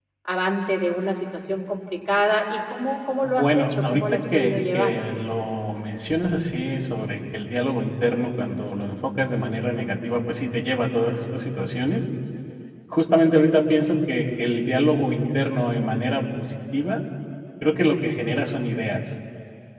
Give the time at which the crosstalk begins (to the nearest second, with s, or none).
3 s